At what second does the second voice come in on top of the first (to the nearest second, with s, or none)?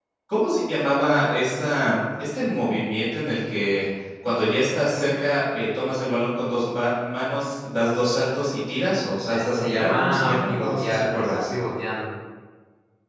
9 s